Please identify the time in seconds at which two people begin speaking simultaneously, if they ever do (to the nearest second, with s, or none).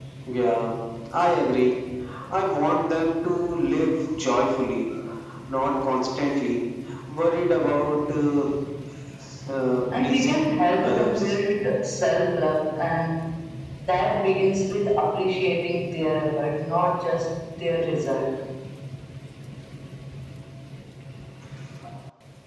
10 s